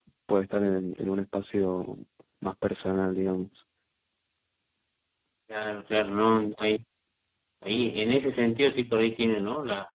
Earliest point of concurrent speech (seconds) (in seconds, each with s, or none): none